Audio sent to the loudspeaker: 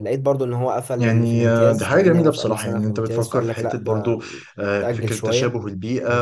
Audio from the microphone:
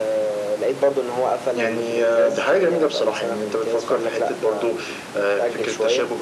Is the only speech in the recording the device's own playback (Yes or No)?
Yes